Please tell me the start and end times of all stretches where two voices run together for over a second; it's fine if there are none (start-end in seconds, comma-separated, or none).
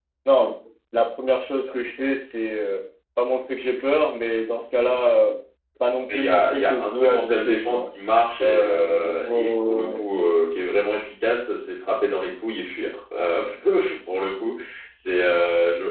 6.1-7.9, 8.4-10.0